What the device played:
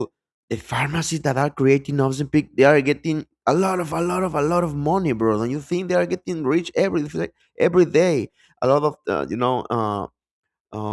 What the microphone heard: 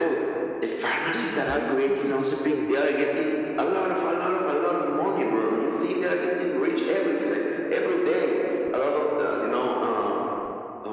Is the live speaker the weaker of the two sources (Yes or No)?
Yes